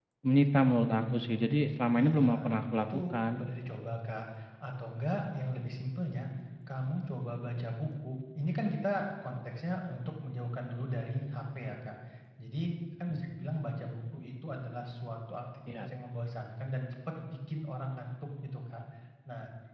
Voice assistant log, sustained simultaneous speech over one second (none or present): present